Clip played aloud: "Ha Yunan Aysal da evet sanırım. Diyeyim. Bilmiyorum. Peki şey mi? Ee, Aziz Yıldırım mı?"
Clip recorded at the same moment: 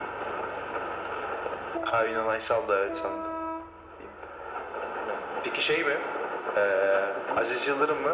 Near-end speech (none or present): present